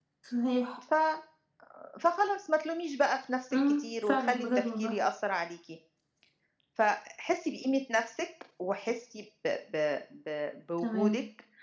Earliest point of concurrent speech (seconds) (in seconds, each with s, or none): 3.5 s